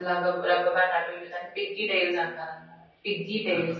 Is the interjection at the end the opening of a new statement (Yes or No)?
No